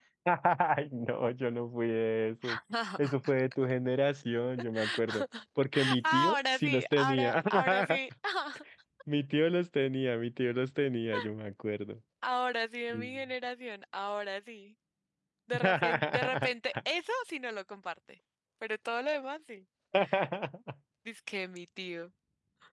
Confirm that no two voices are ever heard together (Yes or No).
No